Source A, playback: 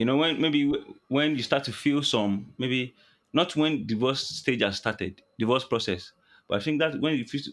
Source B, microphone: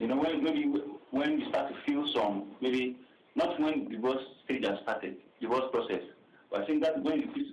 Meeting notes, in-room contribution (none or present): none